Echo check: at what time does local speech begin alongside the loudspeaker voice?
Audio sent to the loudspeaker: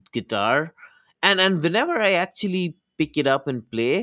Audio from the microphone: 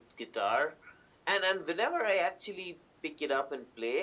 none

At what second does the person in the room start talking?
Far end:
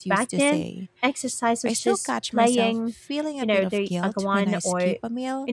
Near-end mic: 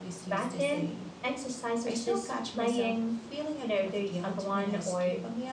none

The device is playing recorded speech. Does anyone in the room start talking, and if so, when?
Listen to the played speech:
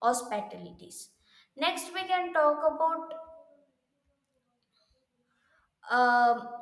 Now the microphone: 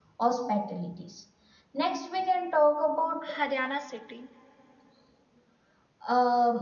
3.2 s

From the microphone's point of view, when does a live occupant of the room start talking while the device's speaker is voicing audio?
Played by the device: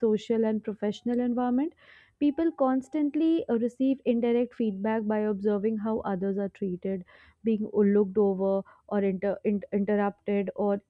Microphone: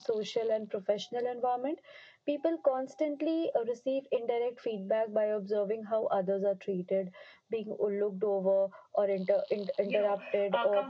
9.8 s

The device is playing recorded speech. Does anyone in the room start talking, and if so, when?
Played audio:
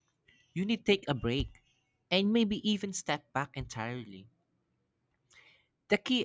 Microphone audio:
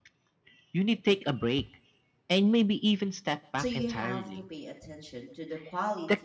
3.6 s

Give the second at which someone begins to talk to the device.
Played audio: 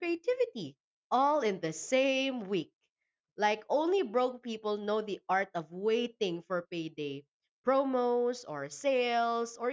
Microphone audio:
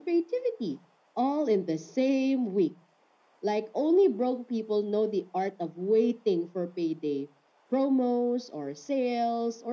none

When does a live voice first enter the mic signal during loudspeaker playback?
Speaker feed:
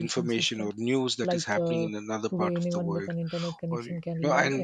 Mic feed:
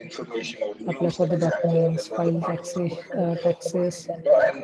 0.9 s

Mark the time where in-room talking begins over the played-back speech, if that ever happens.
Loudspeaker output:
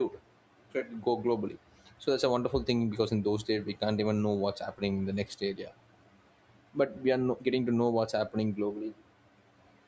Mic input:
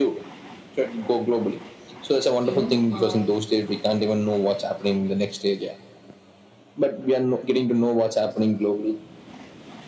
2.4 s

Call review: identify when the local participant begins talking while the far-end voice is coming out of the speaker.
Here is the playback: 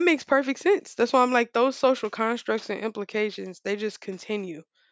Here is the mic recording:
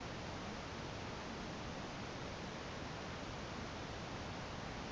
none

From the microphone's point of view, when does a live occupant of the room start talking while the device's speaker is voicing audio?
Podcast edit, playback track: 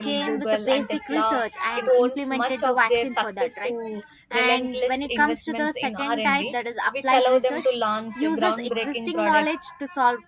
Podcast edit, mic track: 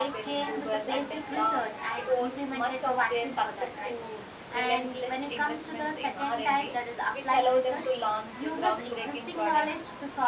none

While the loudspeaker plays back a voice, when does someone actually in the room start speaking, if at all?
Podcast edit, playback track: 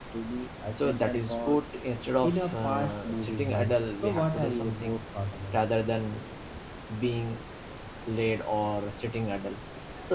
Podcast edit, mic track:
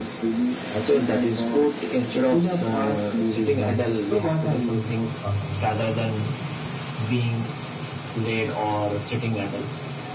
none

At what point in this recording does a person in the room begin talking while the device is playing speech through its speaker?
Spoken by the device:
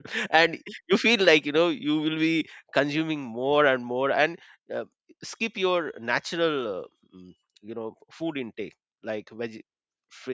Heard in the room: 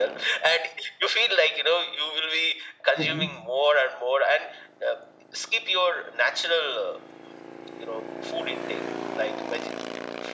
2.9 s

